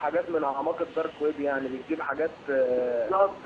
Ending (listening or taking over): taking over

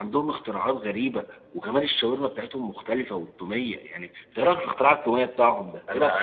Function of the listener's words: taking over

